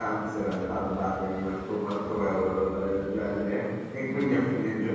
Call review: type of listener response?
listening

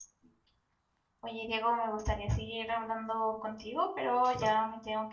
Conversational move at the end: listening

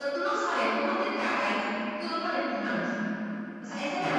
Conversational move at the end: listening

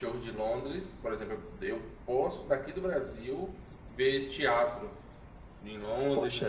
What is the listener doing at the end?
listening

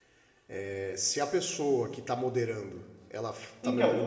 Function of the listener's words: listening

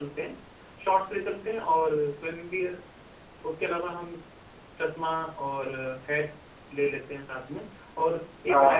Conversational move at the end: listening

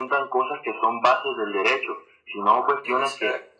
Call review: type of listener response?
listening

